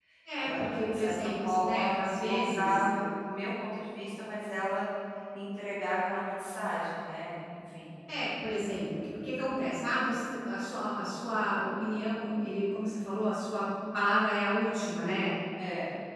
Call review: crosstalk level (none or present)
present